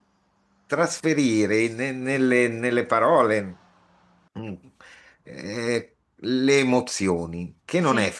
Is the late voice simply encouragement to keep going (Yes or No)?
Yes